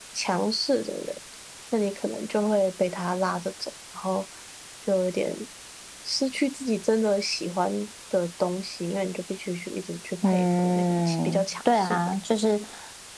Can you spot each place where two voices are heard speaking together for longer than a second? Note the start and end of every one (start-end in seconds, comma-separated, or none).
10.2-12.1